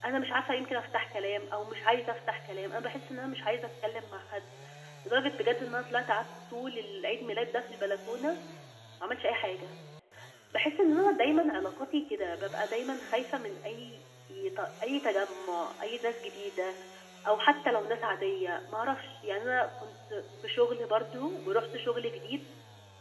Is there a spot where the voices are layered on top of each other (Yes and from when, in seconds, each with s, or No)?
No